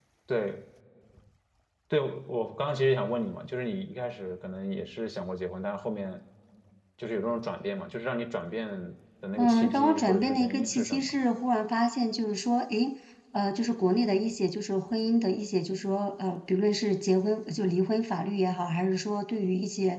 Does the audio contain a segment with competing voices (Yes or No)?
Yes